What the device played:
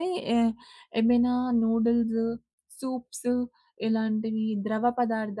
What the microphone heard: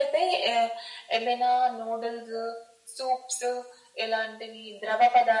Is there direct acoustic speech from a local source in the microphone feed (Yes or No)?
No